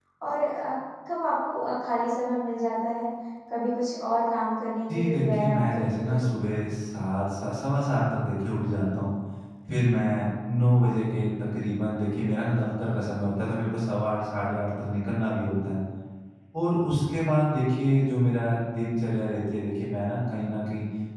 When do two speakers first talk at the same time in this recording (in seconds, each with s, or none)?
4.9 s